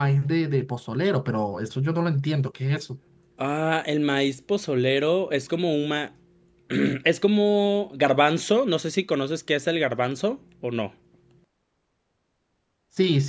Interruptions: none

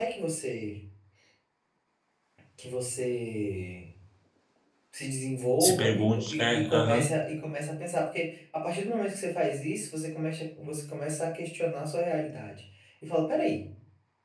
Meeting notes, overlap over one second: present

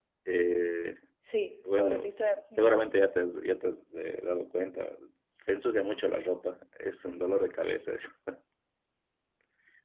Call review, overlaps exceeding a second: none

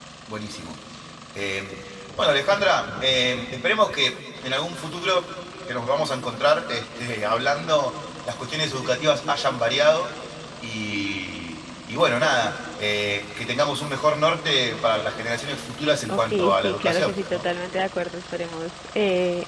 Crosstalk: present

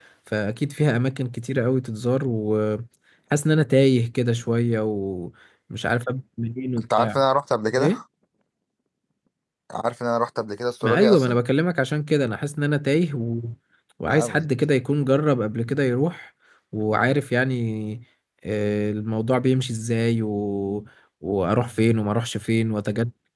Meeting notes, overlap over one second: none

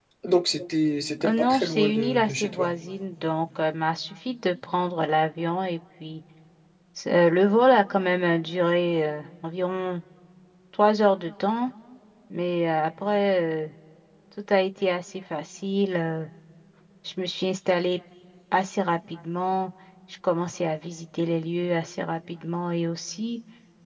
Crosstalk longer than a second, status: present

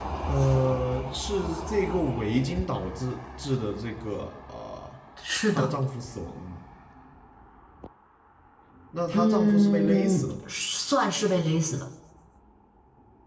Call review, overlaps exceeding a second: present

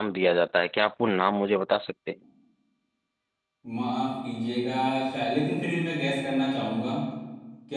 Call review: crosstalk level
none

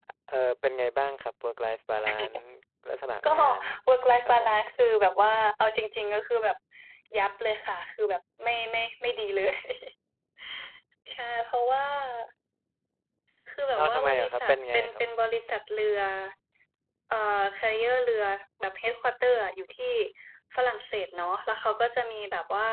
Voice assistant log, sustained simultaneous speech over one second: present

